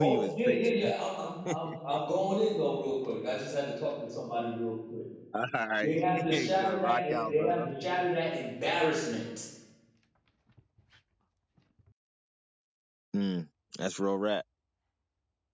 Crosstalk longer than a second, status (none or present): present